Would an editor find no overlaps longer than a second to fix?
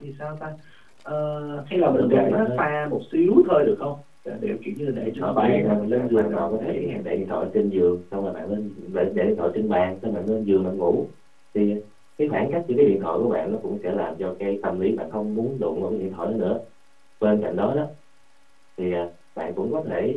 No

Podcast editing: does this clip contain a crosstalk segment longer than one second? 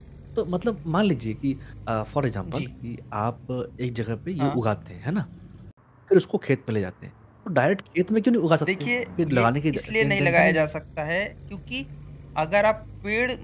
Yes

